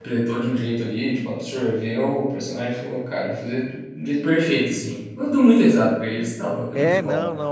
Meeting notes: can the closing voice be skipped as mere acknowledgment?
No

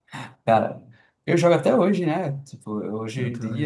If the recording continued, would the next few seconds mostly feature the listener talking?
No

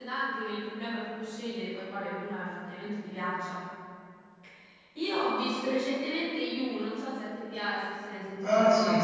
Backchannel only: No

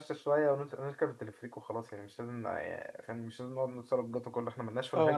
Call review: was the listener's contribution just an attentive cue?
No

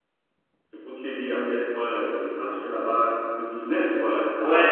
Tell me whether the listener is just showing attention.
No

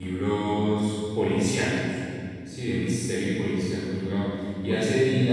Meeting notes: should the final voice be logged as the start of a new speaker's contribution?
No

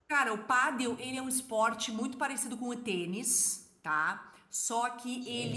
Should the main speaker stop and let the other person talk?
No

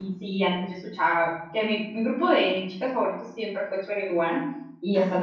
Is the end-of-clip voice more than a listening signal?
No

